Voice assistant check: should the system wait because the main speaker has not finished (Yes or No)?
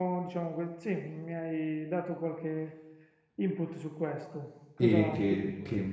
No